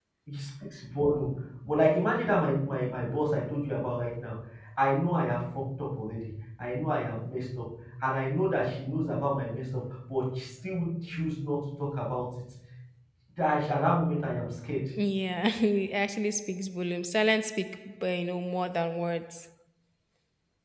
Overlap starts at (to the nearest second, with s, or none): none